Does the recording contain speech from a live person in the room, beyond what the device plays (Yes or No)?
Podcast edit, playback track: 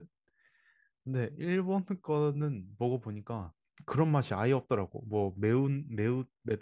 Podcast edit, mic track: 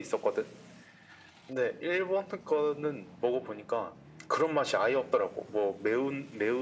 No